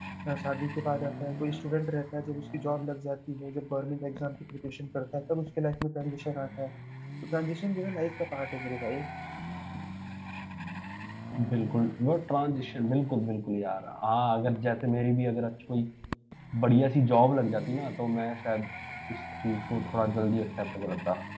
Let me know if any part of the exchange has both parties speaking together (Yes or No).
No